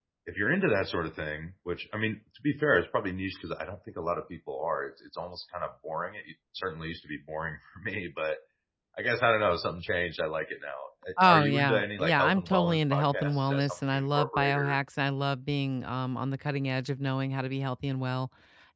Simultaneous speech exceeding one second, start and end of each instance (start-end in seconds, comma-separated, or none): 11.2-14.8